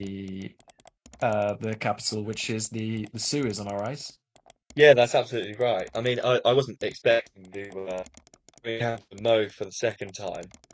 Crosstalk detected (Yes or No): No